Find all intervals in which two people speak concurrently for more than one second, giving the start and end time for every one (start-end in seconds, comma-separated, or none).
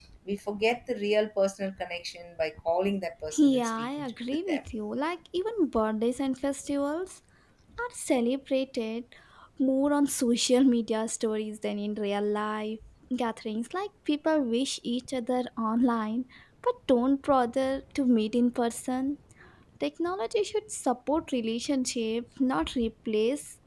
3.4-4.6